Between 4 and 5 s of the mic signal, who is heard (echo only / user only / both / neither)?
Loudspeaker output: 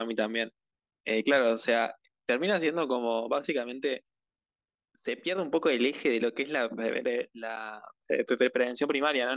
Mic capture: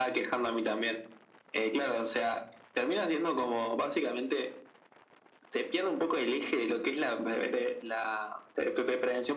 echo only